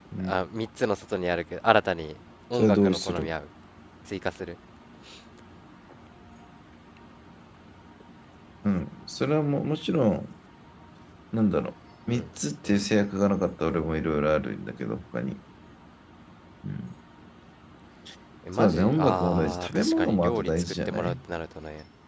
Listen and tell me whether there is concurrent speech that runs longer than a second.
Yes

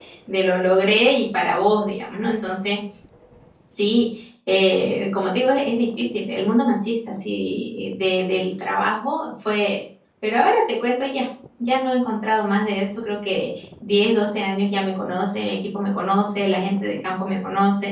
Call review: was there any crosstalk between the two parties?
No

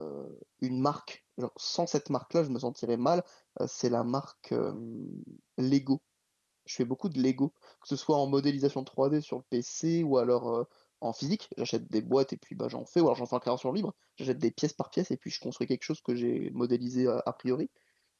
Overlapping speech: No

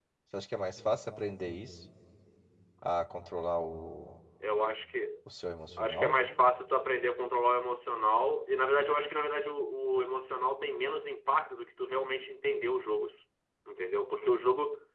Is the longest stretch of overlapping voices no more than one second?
Yes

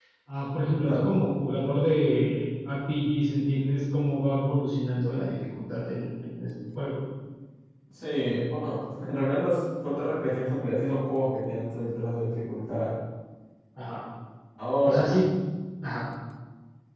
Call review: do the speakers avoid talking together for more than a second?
Yes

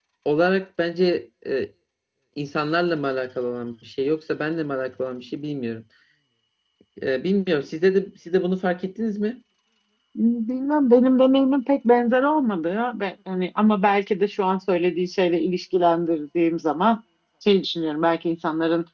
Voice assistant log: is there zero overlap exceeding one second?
Yes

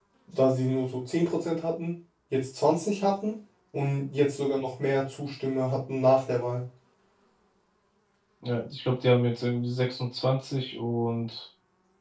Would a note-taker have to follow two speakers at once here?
No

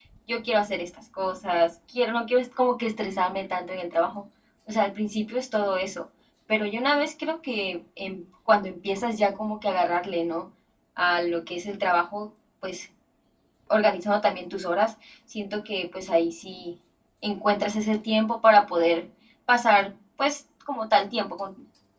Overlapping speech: No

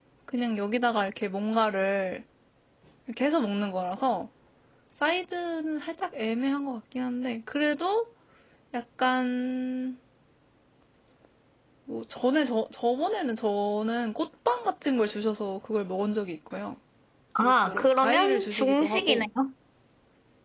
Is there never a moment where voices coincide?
No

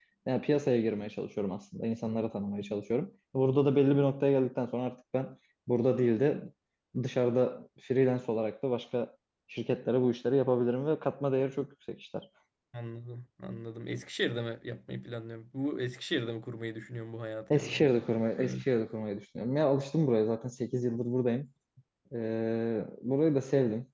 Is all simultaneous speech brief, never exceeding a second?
Yes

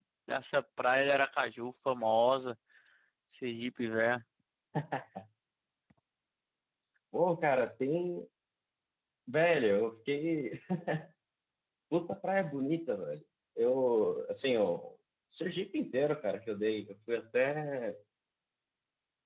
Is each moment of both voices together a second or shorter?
Yes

